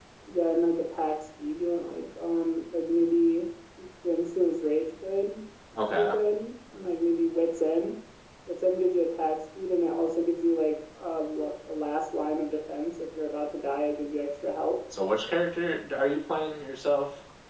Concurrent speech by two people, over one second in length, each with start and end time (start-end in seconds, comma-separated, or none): none